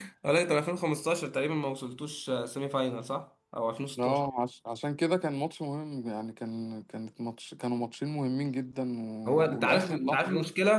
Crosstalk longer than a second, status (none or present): present